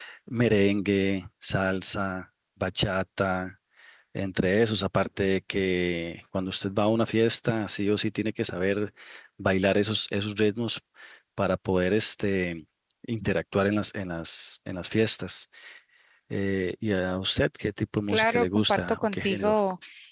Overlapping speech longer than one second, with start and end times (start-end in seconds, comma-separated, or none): 18.1-19.6